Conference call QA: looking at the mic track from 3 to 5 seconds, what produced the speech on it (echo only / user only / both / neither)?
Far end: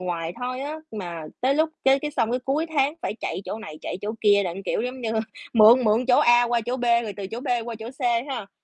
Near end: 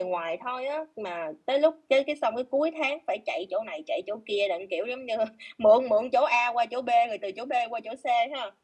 echo only